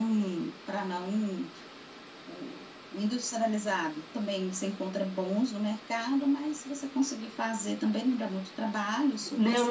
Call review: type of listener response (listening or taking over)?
taking over